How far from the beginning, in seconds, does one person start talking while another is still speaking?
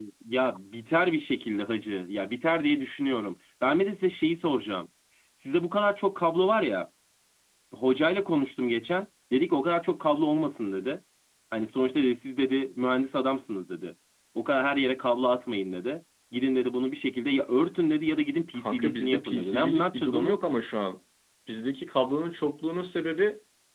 18.5 s

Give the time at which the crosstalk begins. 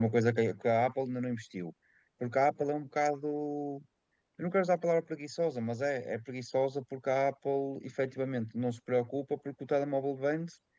none

